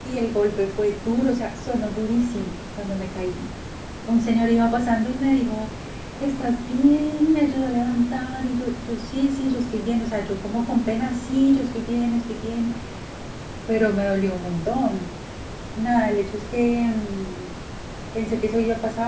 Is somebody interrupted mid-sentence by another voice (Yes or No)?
No